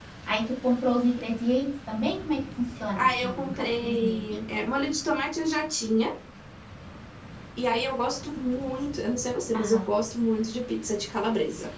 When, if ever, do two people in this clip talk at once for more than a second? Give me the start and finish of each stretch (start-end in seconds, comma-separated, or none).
3.0-4.4